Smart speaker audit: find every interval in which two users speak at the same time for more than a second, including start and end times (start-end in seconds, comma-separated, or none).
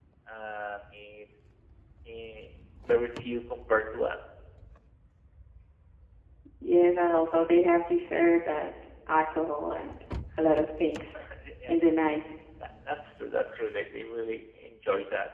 none